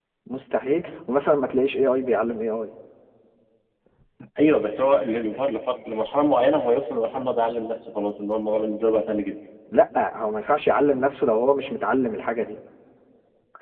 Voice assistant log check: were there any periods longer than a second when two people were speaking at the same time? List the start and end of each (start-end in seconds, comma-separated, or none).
none